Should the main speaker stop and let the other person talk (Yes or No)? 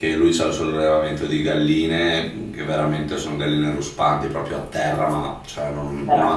No